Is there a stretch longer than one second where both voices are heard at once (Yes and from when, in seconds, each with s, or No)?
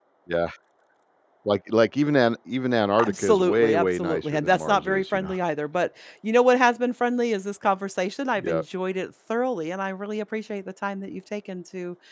Yes, from 3.1 s